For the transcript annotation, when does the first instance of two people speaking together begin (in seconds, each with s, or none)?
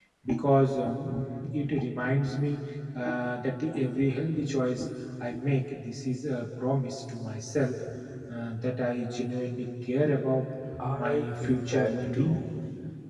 11.0 s